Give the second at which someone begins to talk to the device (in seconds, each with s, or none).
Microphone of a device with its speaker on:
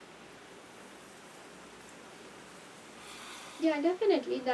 3.6 s